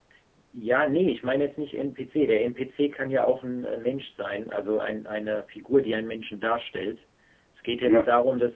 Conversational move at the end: listening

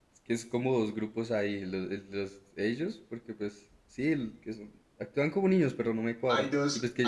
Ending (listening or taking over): taking over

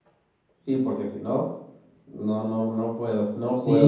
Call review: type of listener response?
taking over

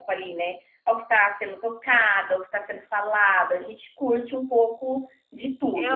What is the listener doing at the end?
taking over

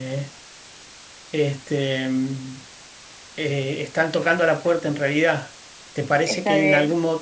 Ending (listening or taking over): listening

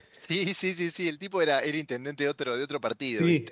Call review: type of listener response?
taking over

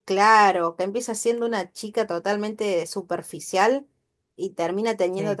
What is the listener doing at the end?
listening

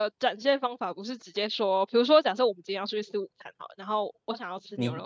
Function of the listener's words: taking over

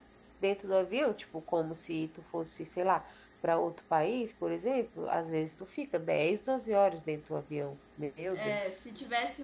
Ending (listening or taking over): taking over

